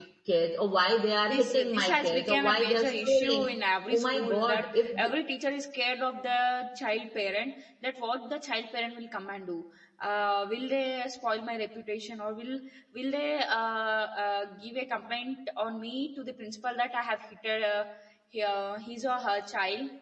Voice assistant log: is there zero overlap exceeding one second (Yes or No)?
No